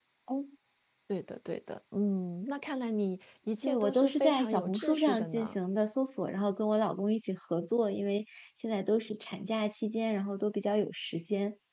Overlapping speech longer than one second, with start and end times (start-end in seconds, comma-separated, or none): 3.6-5.5